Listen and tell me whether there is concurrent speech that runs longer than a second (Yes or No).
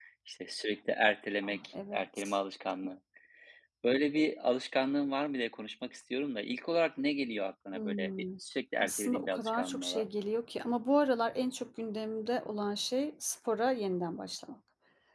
Yes